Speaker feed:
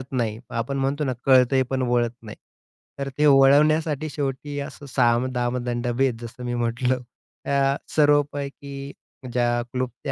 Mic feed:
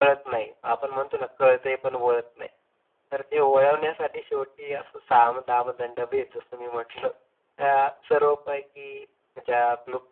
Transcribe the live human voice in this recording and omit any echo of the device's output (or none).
none